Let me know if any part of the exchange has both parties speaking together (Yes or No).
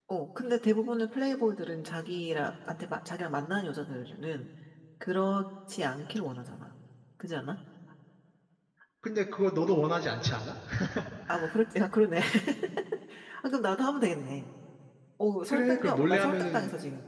Yes